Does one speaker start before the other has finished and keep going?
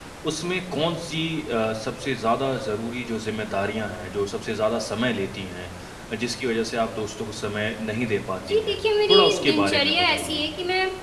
Yes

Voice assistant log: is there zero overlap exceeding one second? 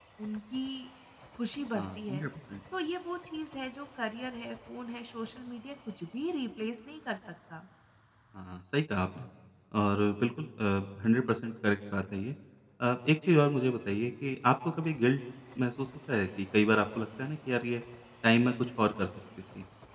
Yes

